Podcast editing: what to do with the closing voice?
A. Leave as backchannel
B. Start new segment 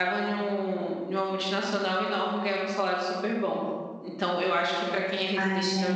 A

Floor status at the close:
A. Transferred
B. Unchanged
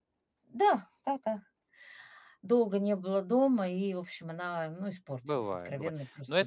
A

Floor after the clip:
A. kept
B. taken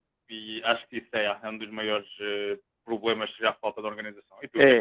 B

